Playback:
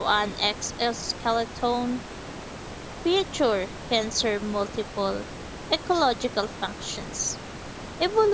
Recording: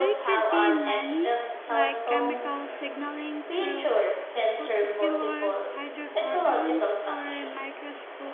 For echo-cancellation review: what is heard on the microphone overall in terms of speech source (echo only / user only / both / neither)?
both